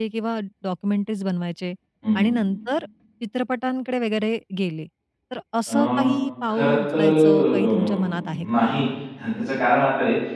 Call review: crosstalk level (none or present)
present